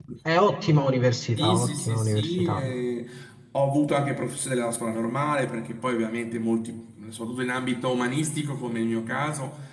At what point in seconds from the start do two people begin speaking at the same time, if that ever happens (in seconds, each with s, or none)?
1.4 s